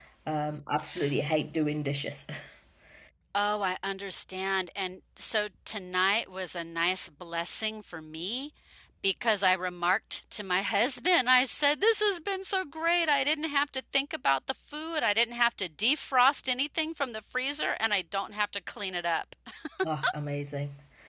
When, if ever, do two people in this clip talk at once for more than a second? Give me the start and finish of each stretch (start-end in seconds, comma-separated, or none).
none